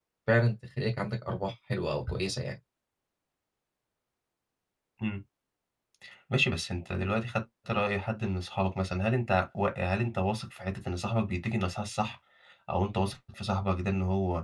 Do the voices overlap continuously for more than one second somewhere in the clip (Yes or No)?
No